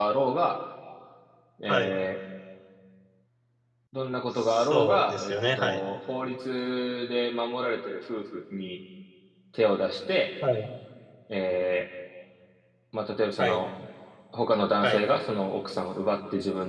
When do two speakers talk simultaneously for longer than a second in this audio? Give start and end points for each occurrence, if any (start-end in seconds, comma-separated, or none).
4.4-5.8